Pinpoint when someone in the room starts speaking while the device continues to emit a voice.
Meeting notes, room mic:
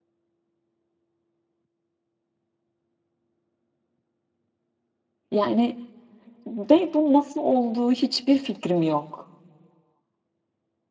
5.3 s

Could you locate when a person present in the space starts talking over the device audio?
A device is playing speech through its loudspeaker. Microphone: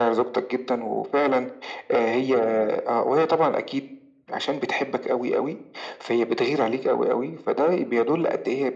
none

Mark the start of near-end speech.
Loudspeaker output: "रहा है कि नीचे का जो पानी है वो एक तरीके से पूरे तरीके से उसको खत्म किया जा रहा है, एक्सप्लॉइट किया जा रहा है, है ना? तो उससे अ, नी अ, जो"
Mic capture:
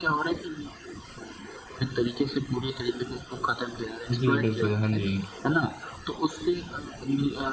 4.1 s

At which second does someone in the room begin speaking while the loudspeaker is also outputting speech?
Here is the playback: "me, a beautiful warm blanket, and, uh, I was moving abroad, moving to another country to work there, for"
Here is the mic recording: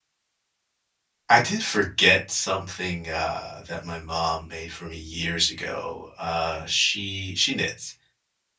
1.3 s

